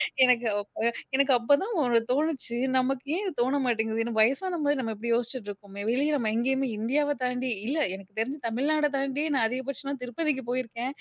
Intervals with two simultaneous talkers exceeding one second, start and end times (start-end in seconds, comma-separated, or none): none